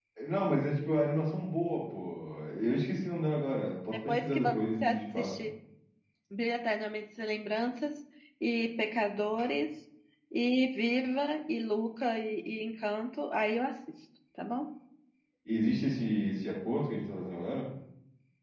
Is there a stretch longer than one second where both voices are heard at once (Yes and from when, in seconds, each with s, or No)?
Yes, from 3.9 s